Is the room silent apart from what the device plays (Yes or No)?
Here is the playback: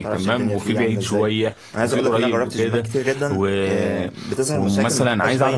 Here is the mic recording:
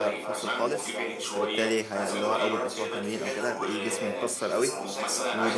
No